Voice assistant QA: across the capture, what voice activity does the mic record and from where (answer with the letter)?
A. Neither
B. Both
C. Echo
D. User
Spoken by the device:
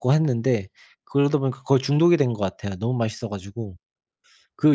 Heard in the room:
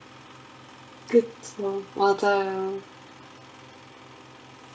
D